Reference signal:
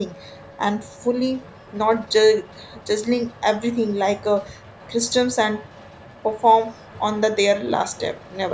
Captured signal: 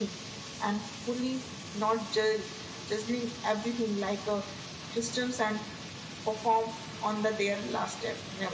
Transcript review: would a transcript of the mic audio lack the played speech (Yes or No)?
No